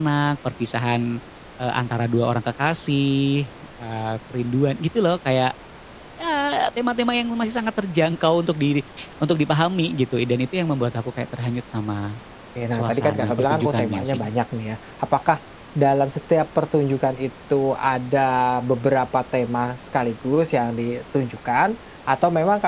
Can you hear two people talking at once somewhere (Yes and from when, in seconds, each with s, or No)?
Yes, from 12.7 s